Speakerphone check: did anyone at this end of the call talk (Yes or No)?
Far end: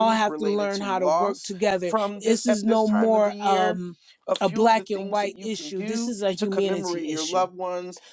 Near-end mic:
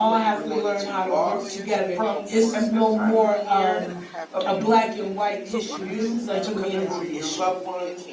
Yes